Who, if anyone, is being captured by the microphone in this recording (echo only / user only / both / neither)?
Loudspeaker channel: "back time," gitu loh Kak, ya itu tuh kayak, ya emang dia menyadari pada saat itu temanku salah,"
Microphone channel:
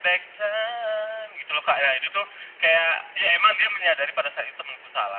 echo only